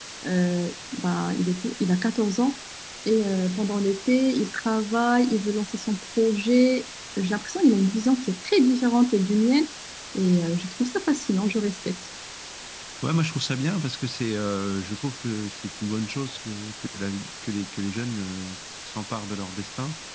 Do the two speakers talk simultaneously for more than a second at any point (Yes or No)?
No